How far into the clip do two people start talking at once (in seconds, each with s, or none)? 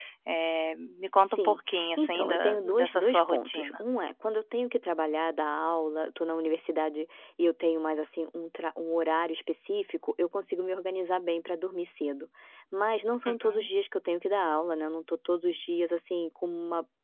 1.3 s